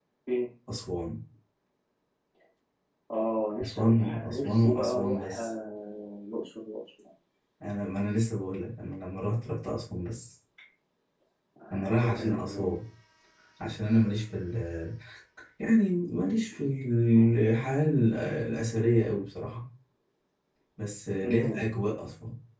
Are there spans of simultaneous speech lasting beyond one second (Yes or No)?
Yes